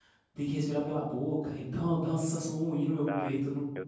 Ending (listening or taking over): taking over